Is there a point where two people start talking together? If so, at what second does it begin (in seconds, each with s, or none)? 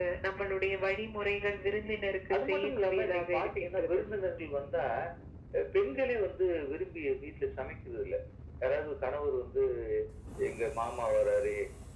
2.3 s